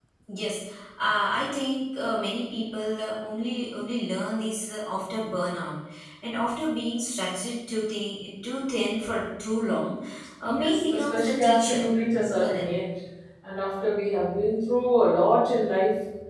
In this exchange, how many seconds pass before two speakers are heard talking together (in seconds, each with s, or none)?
10.4 s